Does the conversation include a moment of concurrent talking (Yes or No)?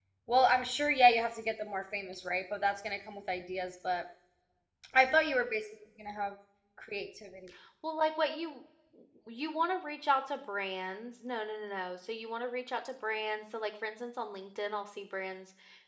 No